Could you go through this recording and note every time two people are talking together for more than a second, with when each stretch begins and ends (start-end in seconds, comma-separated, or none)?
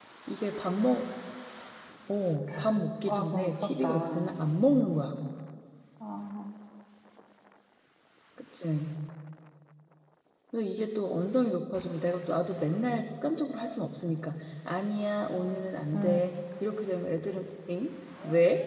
3.1-4.3